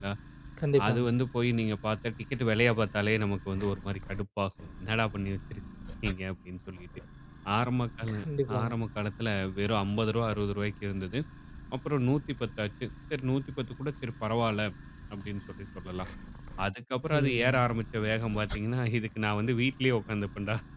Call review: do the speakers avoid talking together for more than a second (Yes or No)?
Yes